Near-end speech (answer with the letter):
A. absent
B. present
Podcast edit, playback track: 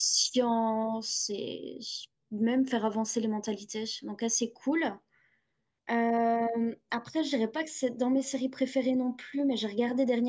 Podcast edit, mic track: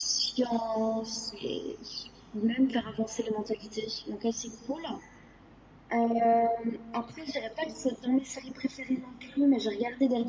A